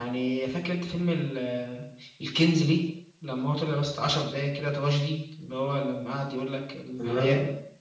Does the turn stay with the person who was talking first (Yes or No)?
Yes